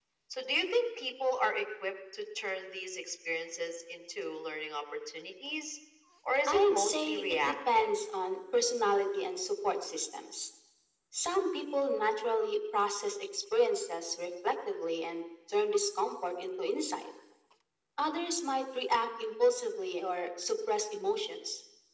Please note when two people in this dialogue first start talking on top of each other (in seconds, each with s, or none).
6.5 s